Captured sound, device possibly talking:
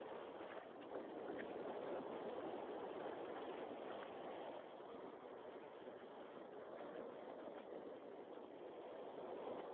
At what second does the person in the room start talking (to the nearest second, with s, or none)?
none